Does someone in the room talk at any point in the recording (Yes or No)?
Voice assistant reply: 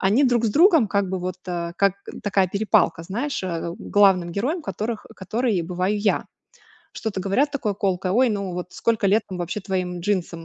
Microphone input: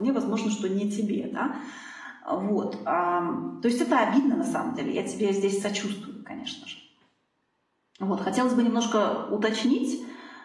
Yes